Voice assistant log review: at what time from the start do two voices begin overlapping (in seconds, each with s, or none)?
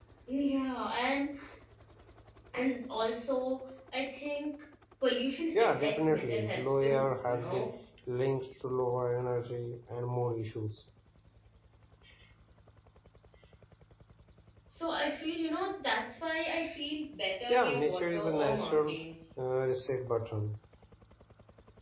5.6 s